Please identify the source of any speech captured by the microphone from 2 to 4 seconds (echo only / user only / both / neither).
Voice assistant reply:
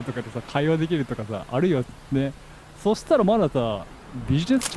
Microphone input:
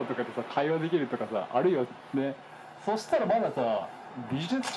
echo only